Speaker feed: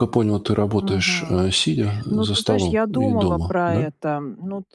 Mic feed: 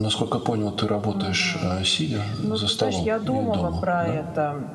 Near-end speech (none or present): none